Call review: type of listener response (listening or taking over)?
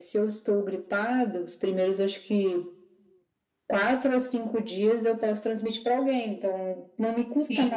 listening